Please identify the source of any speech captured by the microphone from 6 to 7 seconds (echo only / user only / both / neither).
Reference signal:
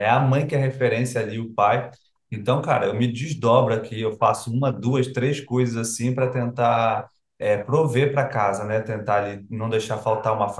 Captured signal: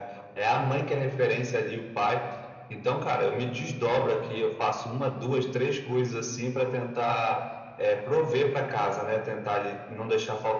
echo only